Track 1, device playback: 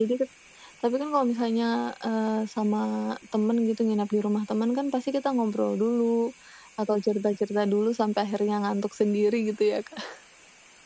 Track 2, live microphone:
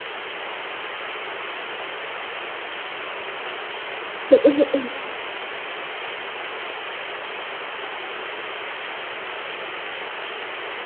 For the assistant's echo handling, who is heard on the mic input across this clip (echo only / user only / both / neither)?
user only